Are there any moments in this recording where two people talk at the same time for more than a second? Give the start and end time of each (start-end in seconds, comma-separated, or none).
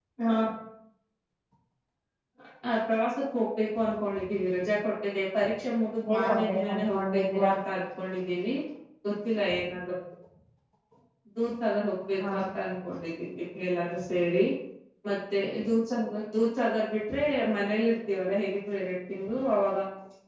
6.1-7.5